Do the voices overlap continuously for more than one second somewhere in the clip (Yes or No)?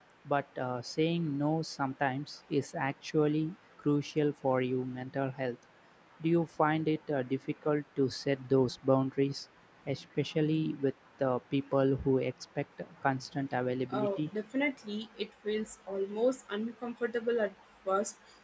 No